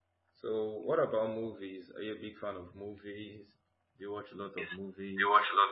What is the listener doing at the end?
taking over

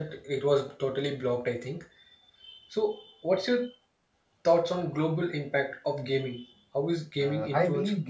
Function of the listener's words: taking over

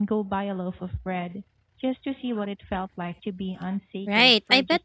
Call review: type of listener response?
taking over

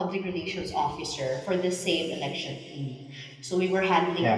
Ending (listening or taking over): listening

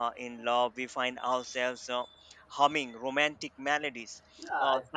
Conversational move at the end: taking over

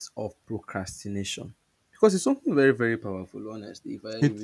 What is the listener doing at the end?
listening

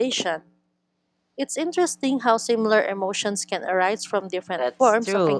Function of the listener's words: taking over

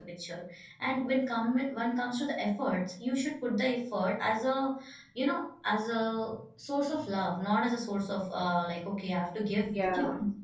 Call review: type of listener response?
listening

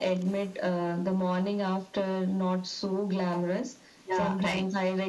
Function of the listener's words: listening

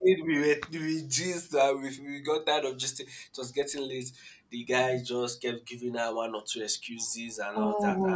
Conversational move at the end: listening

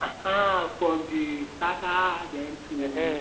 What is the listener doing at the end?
taking over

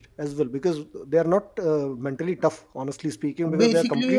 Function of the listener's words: listening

